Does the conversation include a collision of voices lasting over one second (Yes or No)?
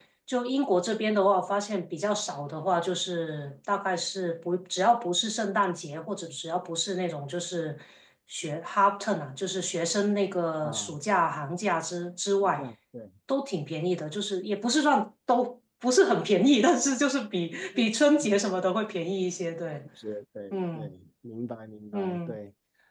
No